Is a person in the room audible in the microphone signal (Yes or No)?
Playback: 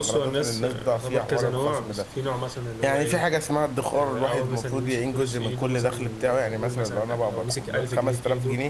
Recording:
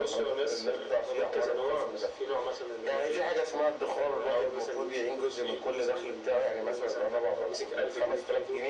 No